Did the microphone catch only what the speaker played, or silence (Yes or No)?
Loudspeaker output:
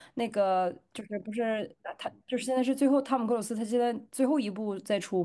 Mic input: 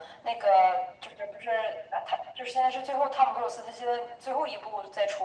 Yes